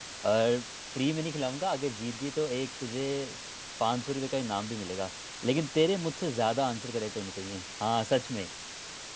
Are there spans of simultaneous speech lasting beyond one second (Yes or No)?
No